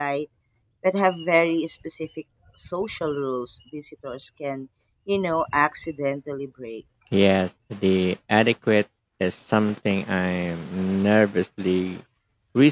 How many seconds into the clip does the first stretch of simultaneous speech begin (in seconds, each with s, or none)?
none